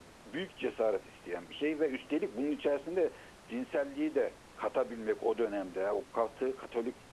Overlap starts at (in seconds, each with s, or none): none